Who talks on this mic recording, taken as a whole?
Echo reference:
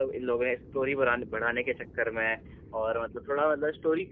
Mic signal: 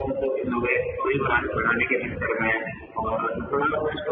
echo only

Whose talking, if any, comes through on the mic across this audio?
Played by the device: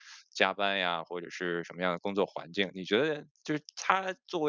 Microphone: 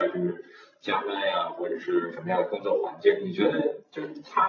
echo only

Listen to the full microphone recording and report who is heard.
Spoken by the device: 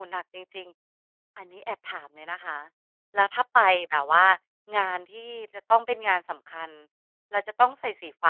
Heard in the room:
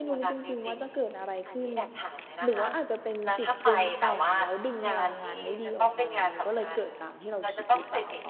both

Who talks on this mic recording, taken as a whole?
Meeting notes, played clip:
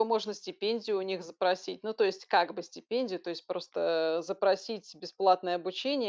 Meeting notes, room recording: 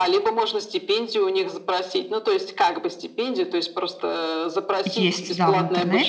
both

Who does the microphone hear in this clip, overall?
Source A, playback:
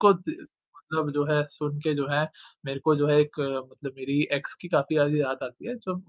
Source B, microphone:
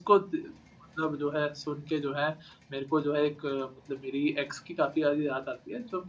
echo only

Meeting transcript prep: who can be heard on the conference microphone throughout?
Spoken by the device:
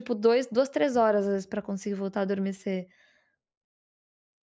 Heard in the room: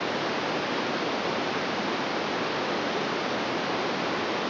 neither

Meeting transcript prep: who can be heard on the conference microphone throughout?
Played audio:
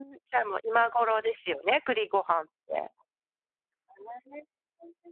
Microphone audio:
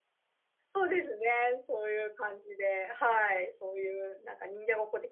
user only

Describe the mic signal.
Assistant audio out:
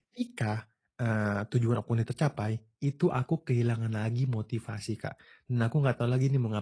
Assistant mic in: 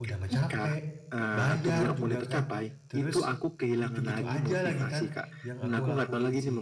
both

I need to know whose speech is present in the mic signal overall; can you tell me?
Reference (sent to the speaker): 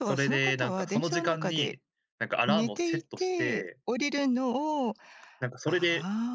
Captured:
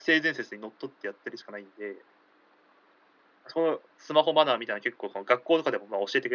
user only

